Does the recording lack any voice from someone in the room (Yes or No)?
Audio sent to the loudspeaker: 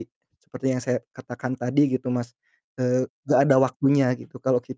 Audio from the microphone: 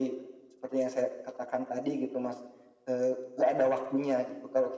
Yes